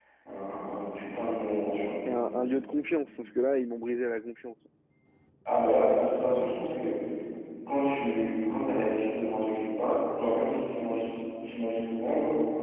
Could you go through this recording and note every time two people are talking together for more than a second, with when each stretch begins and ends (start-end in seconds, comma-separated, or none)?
none